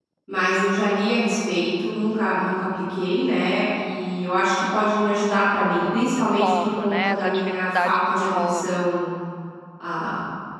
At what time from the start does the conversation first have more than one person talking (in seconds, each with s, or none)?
6.1 s